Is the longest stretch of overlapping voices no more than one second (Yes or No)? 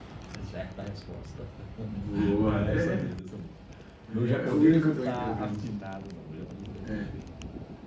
No